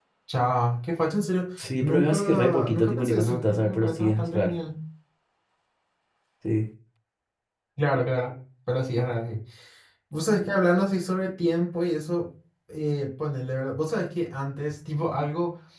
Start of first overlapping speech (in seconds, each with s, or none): 1.8 s